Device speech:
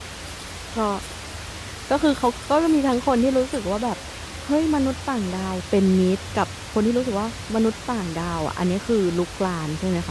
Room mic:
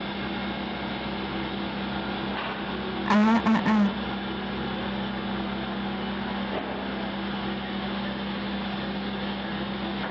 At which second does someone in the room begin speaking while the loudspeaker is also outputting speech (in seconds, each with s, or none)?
3.1 s